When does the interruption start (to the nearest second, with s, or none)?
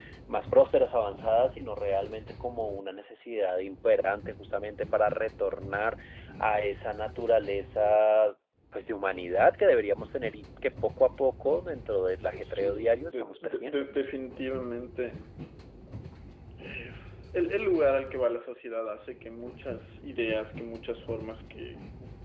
12 s